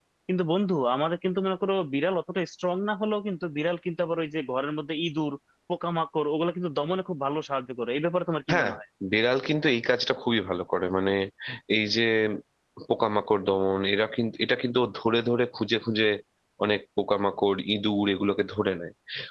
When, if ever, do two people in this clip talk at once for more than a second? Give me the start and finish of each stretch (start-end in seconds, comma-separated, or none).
none